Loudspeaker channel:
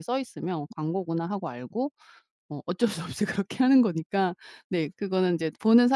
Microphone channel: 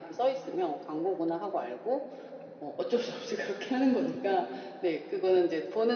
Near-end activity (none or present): none